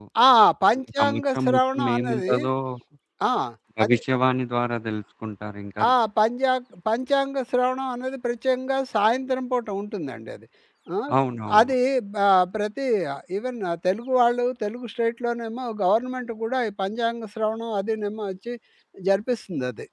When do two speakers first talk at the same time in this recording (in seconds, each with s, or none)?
1.0 s